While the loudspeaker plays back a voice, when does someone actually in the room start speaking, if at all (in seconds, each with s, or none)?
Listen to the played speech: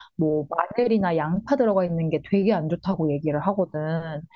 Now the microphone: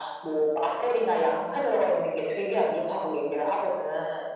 none